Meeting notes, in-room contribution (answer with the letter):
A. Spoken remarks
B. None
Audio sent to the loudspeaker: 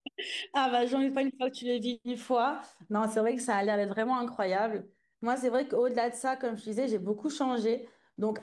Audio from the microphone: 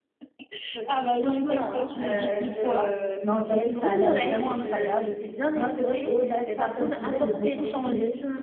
A